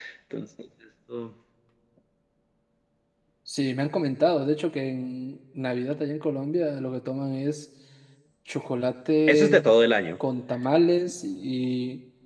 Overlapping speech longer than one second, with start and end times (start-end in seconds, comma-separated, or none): none